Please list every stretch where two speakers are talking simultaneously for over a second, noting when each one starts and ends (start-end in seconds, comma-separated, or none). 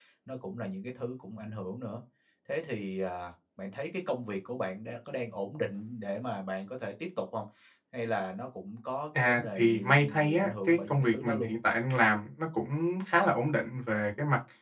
9.2-11.5